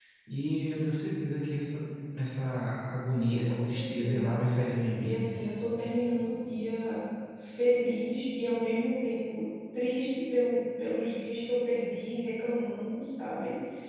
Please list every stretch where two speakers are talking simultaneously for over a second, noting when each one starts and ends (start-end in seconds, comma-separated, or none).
3.1-4.3